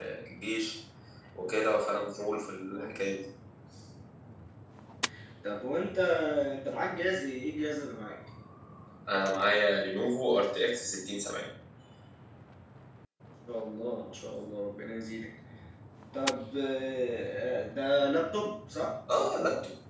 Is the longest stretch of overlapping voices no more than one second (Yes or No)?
Yes